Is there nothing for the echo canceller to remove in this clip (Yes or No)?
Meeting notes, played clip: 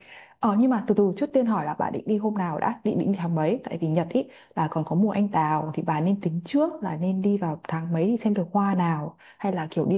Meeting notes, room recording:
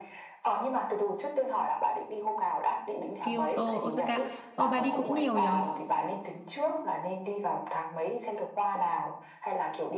No